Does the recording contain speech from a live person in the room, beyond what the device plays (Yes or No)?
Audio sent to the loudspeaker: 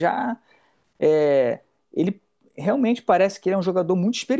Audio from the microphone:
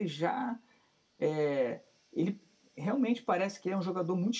No